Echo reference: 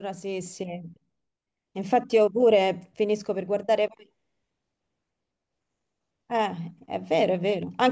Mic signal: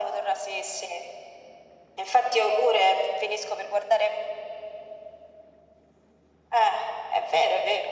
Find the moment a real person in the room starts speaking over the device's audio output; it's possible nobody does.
none

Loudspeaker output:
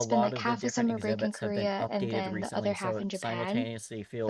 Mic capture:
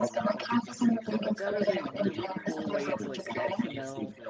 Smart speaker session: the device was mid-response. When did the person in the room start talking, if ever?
1.2 s

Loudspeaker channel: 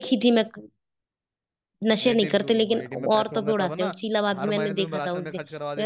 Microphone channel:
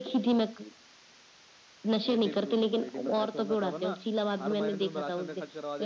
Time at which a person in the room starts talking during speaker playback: none

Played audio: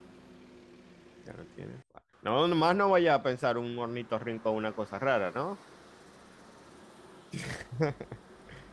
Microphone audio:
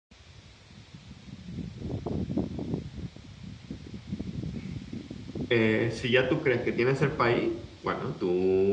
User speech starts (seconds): 5.5 s

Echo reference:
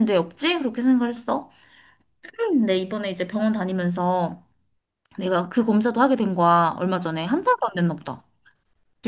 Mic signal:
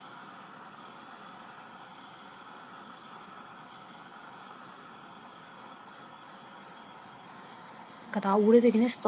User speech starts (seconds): 8.0 s

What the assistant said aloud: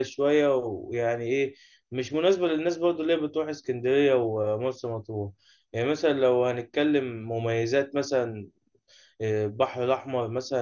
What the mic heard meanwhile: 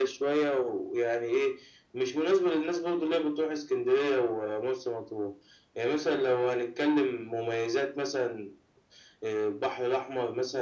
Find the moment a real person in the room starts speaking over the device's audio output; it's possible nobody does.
none

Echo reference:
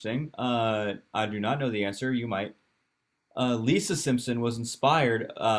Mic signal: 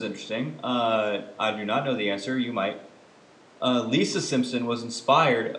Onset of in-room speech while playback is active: none

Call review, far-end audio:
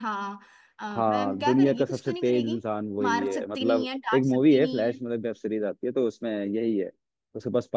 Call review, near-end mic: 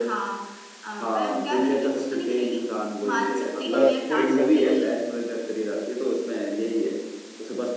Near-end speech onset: 3.7 s

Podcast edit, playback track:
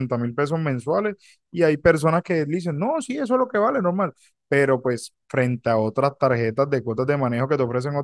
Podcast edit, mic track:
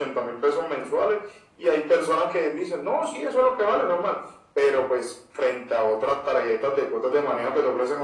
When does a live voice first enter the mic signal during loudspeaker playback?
none

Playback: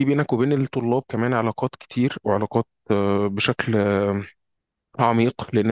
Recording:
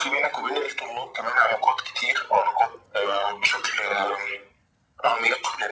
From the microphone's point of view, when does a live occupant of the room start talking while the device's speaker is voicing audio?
none

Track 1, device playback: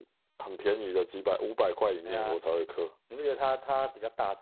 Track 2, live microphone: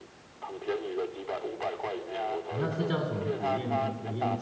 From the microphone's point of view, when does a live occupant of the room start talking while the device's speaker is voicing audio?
2.5 s

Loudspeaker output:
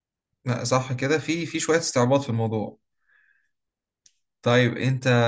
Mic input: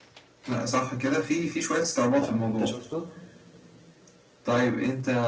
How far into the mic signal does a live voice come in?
2.1 s

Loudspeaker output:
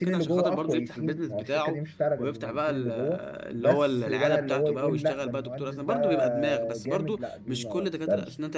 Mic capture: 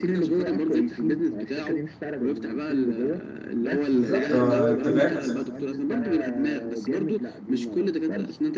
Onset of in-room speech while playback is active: 3.9 s

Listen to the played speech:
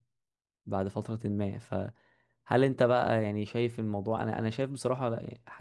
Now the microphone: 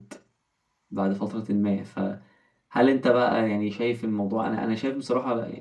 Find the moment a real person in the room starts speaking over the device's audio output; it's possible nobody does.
none

